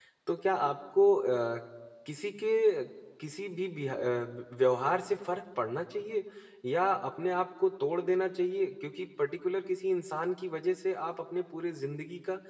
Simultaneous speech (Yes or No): No